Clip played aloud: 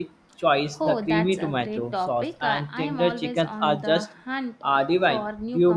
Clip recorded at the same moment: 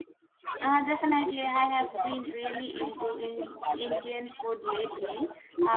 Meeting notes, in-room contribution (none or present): present